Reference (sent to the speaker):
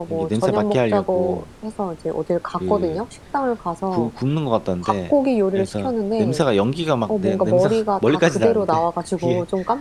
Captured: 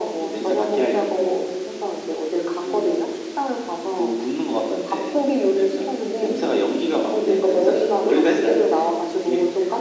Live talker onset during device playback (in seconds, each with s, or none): none